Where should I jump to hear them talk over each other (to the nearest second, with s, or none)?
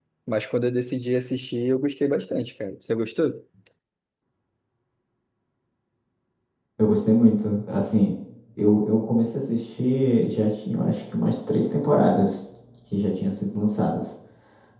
none